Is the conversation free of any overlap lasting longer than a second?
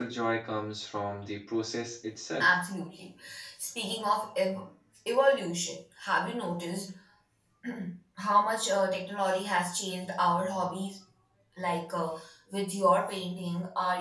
Yes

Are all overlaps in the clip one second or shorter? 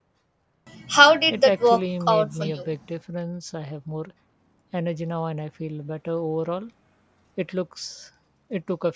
No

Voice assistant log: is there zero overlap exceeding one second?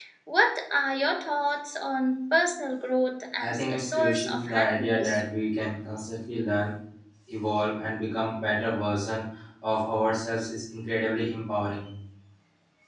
No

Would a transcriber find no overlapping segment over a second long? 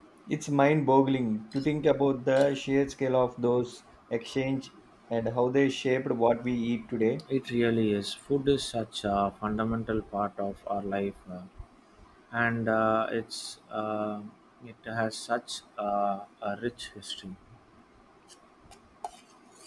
Yes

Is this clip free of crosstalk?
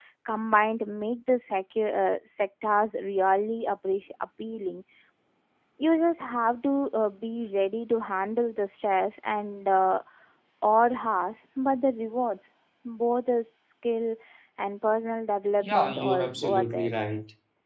No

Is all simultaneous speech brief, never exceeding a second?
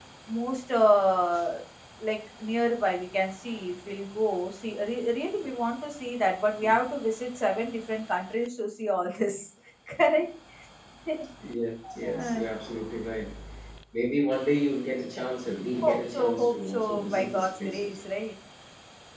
No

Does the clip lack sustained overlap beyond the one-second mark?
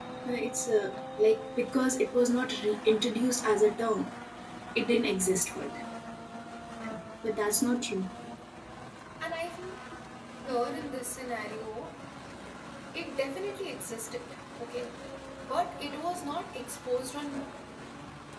Yes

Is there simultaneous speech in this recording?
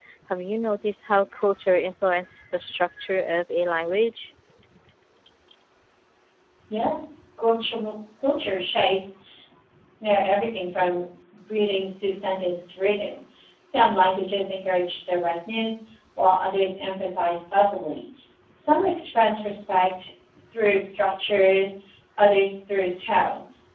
No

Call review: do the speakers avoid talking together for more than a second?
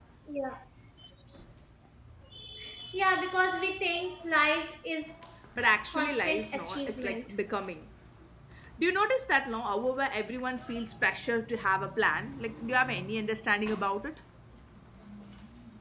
No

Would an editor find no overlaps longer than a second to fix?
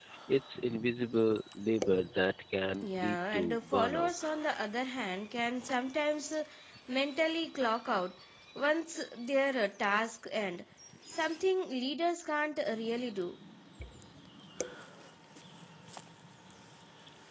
No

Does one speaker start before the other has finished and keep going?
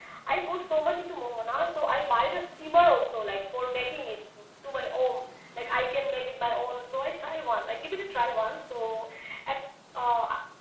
No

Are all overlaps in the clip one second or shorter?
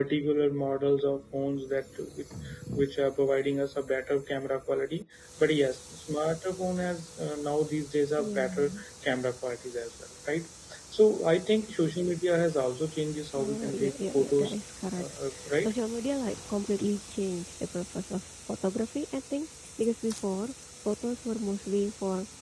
No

